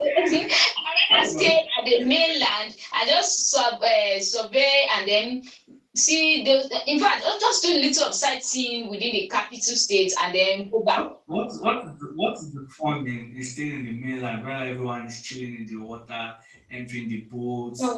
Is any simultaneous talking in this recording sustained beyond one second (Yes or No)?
No